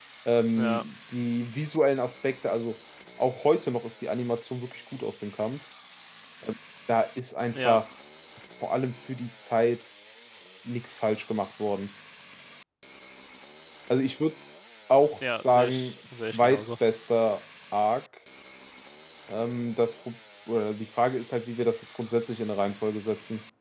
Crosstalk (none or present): present